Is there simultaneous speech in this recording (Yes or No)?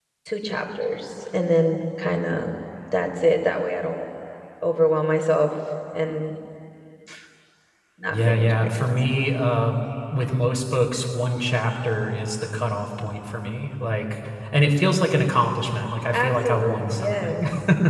Yes